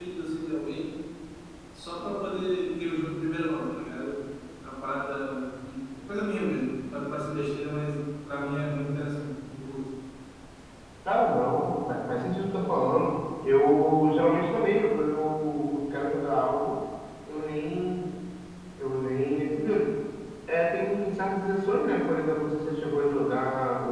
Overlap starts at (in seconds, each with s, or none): none